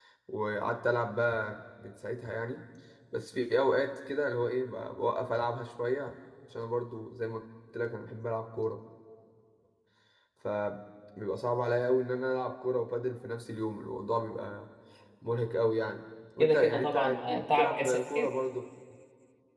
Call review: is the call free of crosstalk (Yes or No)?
No